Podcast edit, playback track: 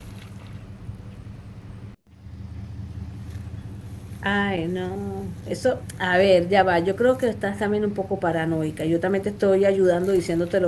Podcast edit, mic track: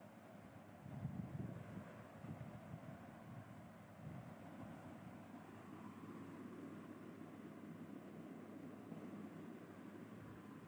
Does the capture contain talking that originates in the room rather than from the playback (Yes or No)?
No